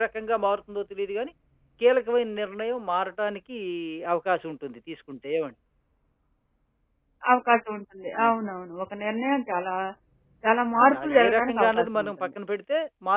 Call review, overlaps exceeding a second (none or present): present